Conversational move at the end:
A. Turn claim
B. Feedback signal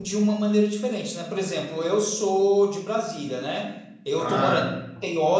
B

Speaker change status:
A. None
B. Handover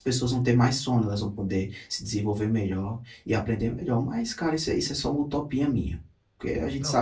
B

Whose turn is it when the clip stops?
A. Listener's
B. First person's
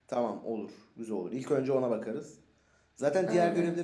B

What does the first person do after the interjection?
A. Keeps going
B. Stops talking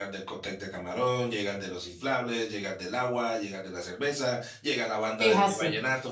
A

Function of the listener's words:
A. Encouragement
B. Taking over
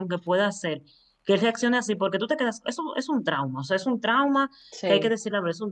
A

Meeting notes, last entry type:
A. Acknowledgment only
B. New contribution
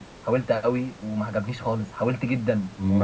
B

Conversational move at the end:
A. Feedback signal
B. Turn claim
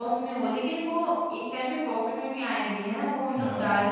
A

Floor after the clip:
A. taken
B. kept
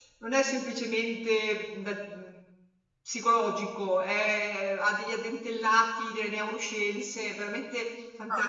A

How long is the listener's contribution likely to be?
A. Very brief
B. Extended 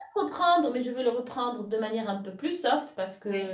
A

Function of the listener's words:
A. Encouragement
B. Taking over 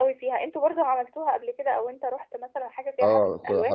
B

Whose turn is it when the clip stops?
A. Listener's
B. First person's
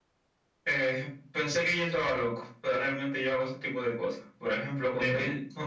B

